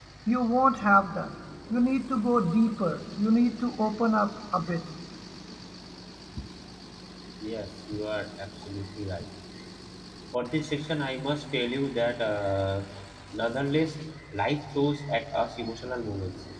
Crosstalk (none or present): none